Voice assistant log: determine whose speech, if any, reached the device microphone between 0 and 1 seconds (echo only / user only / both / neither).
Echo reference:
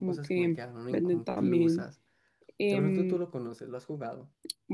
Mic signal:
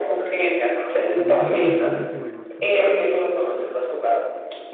echo only